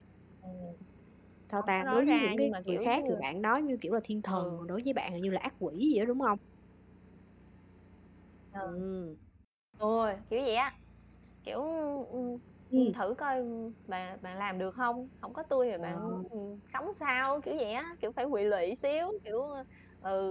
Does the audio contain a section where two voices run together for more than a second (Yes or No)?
Yes